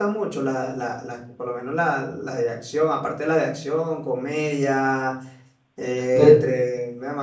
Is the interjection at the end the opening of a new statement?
No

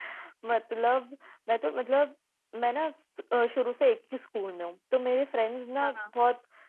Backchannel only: Yes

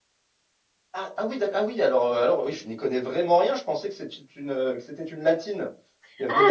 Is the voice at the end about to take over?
Yes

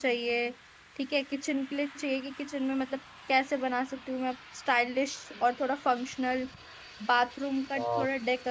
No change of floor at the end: Yes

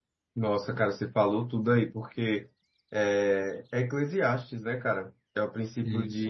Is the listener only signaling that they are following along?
Yes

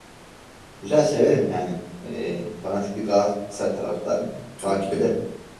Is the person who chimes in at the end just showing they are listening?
No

